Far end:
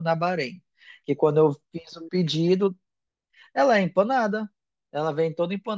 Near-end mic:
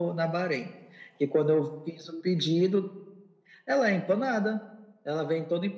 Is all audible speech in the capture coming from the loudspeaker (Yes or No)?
Yes